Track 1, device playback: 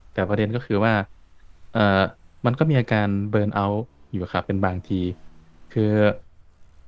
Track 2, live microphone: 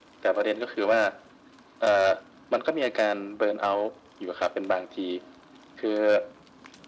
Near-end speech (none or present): none